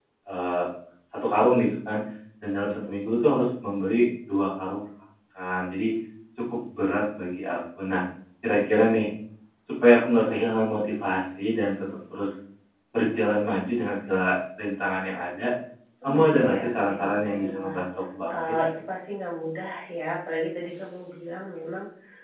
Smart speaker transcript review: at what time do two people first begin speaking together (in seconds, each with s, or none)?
16.0 s